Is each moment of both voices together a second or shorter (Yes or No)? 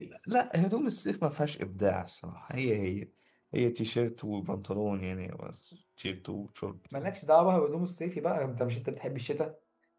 Yes